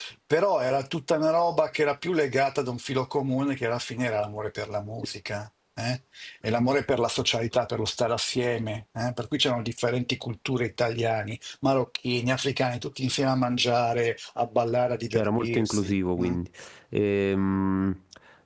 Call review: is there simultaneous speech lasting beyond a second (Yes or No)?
Yes